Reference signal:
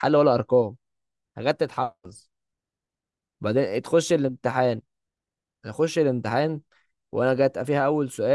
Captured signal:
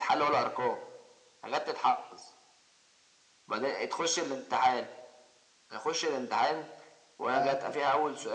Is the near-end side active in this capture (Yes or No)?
Yes